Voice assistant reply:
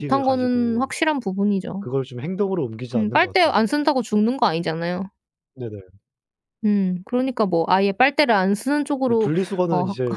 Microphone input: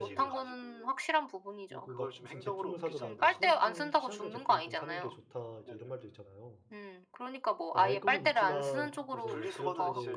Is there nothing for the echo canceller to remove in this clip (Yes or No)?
No